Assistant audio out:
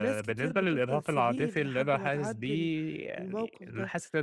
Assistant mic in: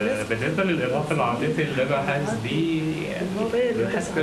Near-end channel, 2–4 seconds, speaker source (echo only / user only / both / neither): both